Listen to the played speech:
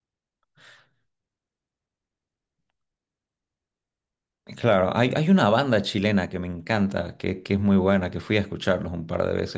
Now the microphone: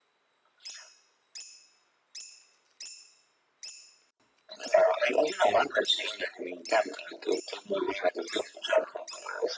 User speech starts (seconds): none

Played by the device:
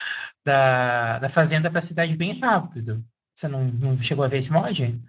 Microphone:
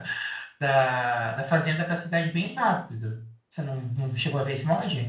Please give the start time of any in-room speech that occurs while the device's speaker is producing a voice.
none

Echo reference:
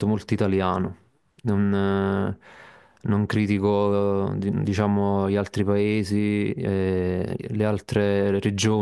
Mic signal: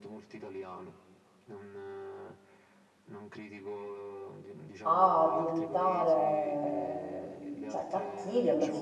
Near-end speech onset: 4.8 s

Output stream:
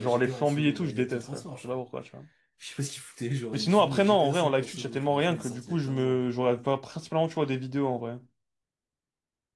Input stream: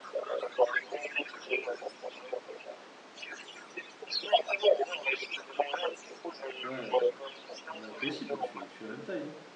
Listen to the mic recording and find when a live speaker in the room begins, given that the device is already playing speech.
6.6 s

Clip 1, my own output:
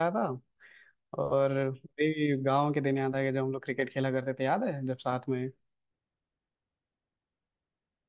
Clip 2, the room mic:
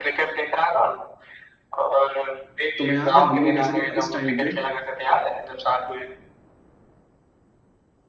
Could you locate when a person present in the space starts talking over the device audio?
2.8 s

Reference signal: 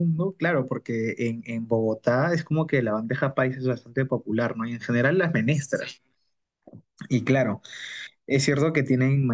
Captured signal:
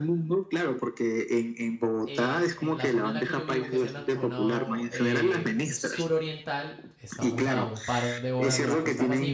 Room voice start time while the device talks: 2.0 s

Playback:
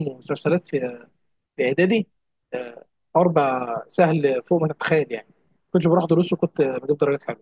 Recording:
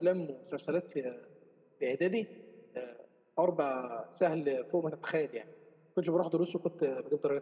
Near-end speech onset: none

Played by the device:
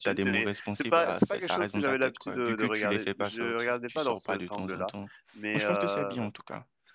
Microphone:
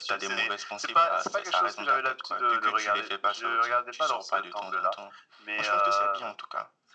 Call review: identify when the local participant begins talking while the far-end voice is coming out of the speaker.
none

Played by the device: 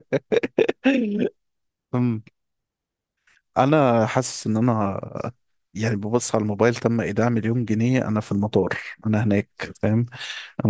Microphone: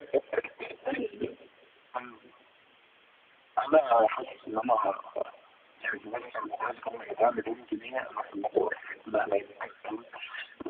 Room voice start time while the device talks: none

